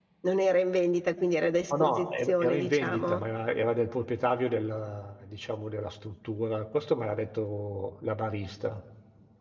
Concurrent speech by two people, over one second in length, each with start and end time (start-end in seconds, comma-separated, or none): 1.7-3.2